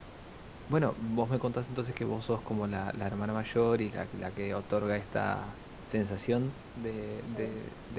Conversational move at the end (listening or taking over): listening